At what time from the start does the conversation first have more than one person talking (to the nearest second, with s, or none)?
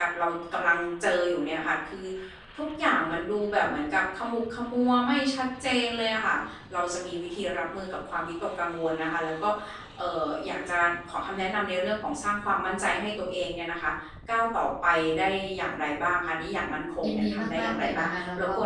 17 s